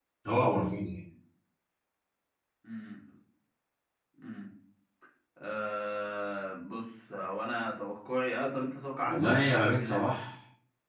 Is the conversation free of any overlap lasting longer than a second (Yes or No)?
No